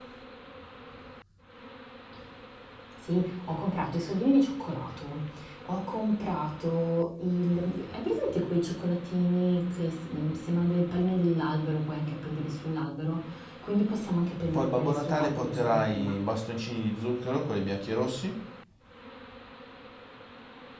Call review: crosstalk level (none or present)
present